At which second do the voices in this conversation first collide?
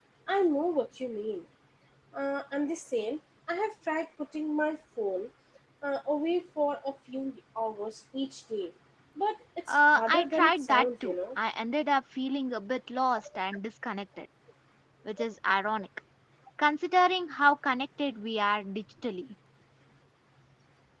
9.7 s

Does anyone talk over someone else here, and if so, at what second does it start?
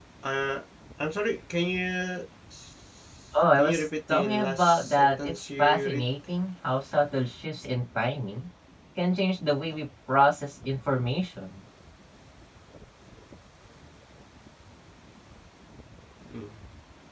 3.6 s

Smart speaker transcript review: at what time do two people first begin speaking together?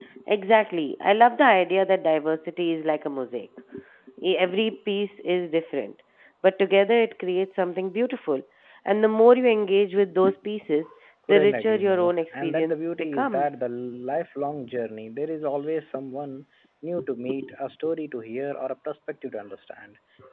11.3 s

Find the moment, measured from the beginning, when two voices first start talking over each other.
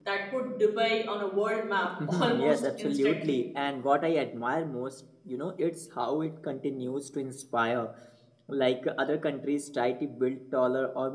1.8 s

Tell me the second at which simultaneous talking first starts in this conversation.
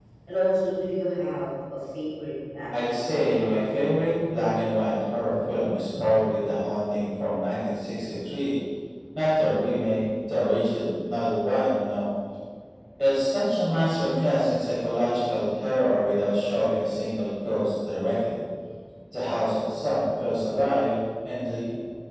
2.7 s

